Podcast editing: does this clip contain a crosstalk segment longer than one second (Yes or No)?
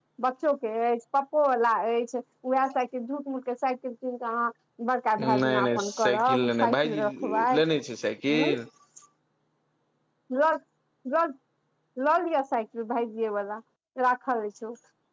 Yes